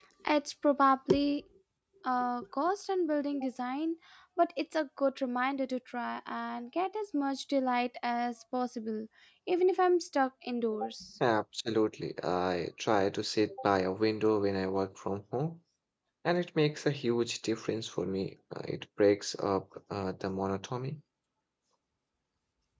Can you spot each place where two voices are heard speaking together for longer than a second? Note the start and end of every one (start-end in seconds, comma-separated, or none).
none